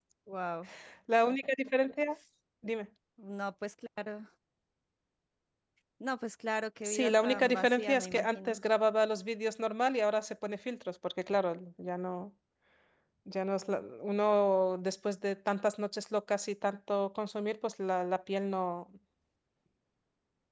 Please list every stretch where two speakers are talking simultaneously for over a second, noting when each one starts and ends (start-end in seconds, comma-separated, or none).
6.8-8.6